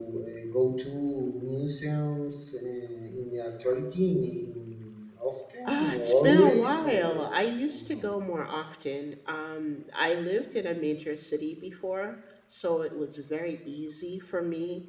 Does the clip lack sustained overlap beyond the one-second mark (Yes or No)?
No